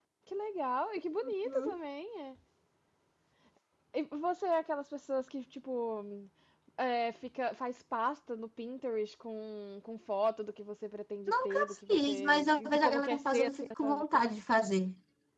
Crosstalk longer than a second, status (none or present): present